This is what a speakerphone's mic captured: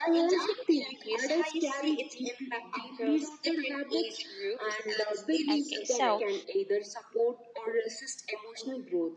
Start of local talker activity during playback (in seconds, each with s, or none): 5.5 s